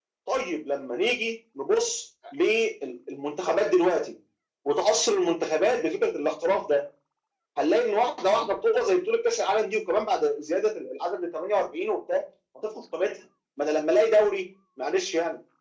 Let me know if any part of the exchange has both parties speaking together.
No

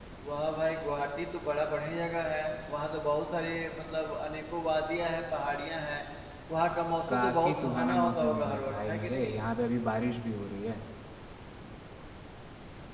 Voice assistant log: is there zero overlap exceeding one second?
No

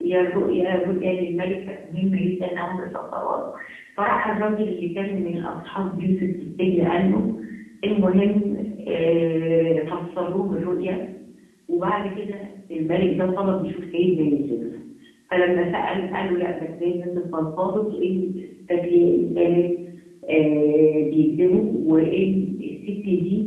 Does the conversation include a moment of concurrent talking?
No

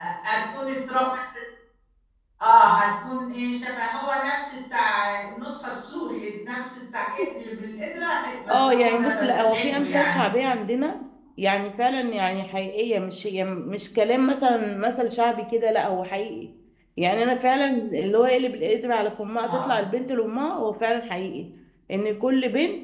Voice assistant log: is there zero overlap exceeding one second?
No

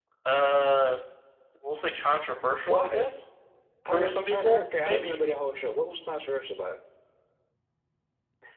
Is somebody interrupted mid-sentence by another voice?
Yes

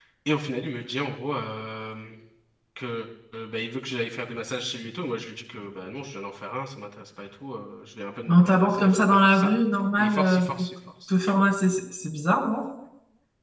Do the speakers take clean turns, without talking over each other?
No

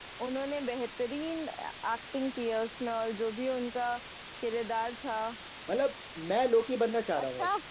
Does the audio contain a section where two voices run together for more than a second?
No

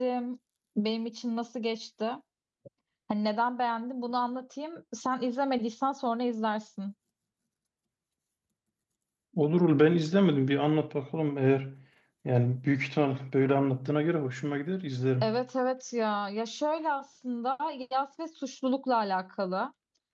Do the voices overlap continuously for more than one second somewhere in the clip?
No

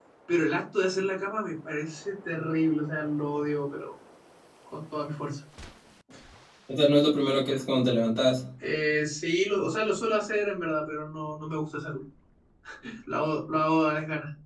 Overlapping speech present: No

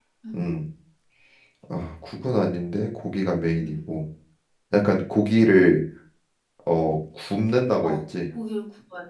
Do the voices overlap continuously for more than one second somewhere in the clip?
No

